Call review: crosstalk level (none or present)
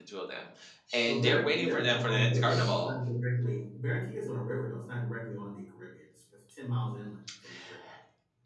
present